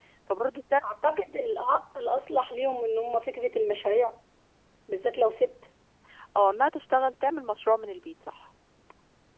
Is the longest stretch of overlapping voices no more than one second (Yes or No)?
Yes